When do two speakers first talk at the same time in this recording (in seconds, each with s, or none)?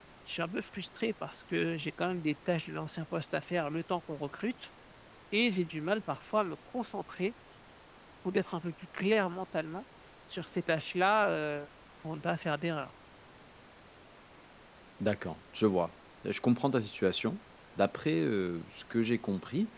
none